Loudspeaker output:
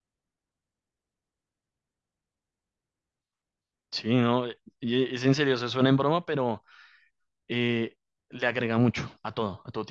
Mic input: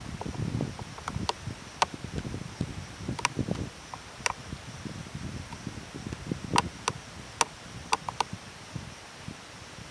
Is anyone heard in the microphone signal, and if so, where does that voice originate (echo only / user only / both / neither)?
neither